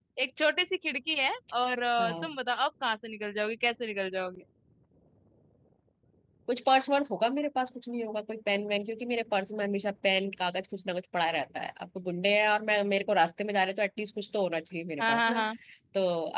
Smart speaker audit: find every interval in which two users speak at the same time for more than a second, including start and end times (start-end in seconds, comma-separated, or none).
none